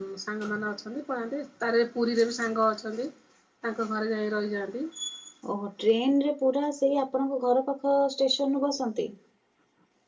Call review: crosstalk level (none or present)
none